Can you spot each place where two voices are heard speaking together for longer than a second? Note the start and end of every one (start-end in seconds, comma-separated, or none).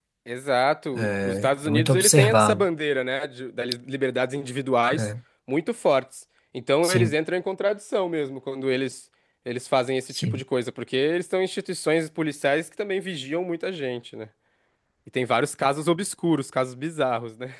0.9-2.6